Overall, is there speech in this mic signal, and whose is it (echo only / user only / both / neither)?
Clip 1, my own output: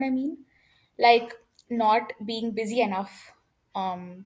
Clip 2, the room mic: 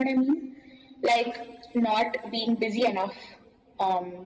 echo only